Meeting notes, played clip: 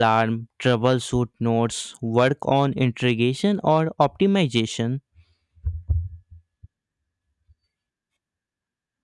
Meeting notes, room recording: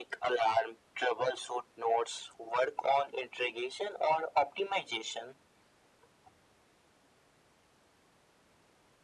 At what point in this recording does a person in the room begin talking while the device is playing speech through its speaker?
none

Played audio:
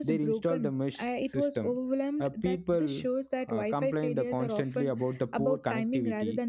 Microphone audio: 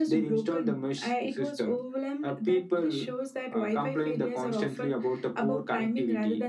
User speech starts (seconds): none

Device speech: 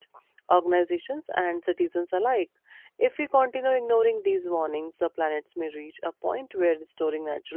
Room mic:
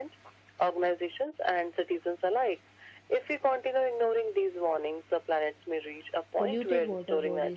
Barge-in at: 6.4 s

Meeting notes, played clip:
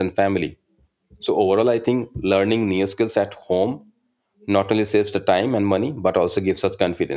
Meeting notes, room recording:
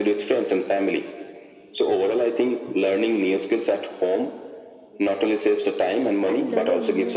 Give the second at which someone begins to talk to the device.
6.2 s

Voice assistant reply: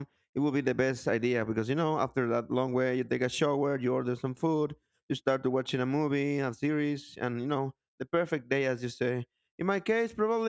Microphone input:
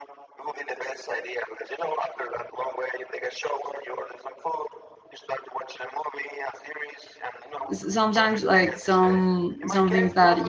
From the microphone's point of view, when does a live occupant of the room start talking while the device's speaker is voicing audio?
7.7 s

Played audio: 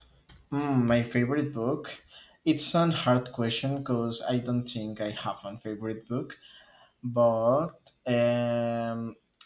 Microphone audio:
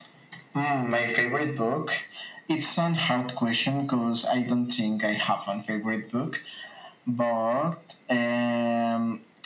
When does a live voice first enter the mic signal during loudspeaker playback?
none

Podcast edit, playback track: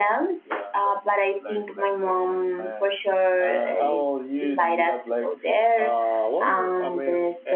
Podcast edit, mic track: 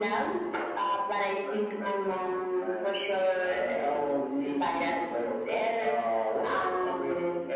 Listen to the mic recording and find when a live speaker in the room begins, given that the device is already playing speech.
none

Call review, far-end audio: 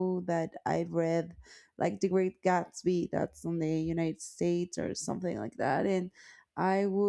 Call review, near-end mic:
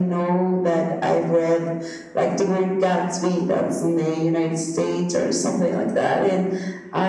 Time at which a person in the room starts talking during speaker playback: none

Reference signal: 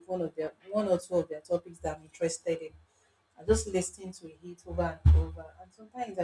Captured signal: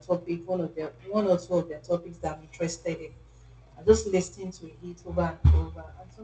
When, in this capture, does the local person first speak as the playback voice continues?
none

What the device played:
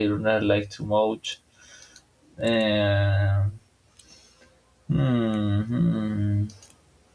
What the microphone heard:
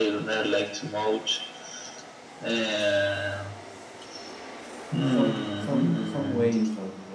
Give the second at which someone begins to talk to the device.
5.0 s

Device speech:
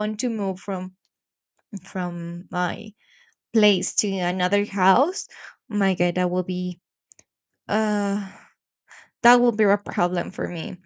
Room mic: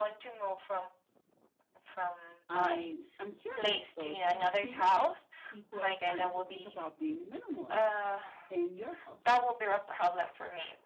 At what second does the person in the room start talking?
2.5 s

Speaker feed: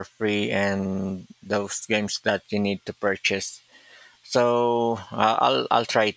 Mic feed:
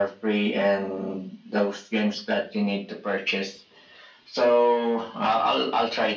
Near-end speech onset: none

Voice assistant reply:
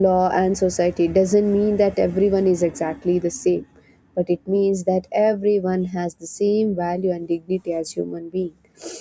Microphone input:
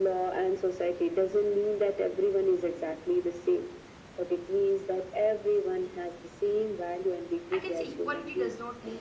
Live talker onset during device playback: 7.5 s

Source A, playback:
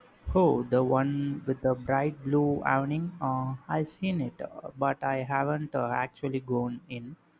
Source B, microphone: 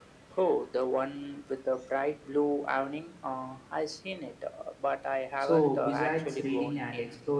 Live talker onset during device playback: 5.4 s

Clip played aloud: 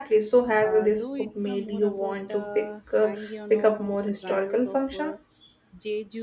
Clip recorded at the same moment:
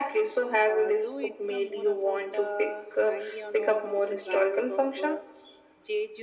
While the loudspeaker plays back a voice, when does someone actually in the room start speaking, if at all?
none

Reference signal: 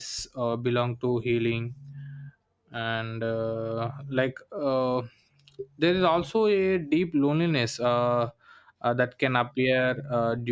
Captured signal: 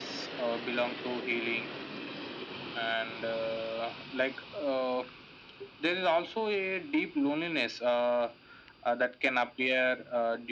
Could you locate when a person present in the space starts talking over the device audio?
none

